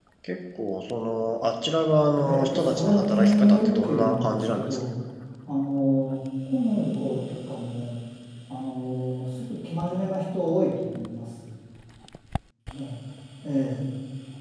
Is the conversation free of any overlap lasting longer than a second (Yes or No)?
No